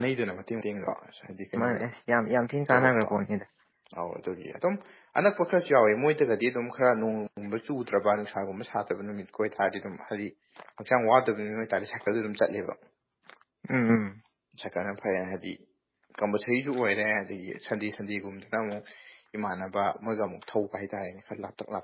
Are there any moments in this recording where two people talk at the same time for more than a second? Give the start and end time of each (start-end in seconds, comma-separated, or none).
none